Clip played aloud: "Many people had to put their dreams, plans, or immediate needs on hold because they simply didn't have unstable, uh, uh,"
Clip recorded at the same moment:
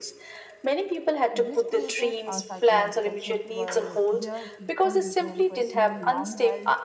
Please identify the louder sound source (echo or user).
echo